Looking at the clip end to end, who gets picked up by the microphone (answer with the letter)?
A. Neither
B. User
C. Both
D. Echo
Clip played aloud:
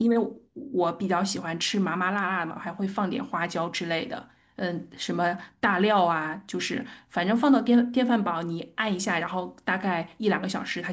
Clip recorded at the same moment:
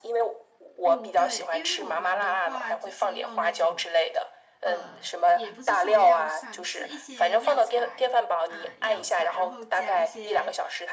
C